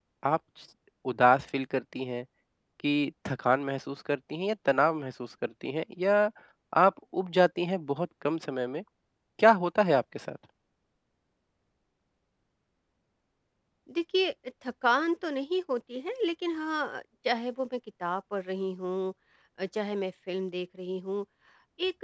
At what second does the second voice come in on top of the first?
none

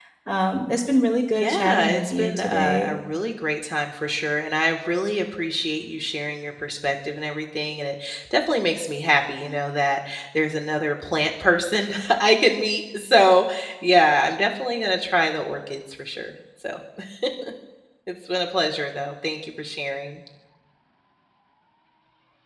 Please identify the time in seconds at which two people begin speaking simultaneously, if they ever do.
1.4 s

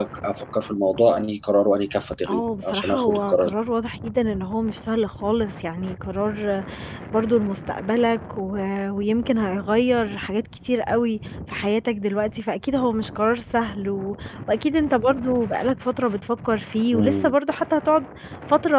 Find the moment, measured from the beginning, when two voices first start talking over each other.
2.3 s

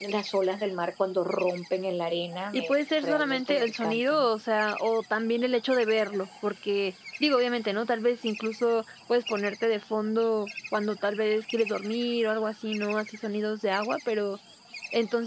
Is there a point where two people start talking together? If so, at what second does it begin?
2.5 s

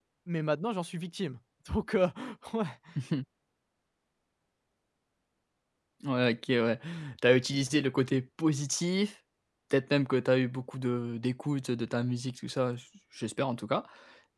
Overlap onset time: none

